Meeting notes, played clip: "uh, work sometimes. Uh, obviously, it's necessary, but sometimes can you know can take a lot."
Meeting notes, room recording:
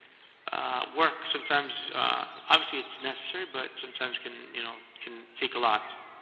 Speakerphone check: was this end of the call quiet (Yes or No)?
Yes